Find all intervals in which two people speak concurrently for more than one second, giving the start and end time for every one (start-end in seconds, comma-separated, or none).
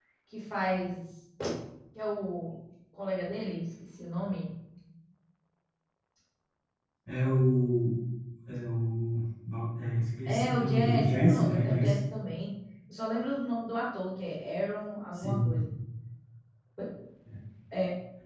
10.2-12.0